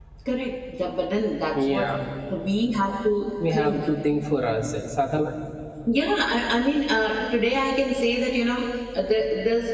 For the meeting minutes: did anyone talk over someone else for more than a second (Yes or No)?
No